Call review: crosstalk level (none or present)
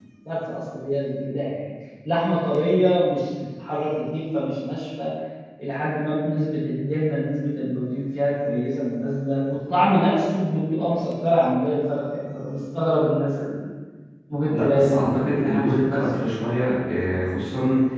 present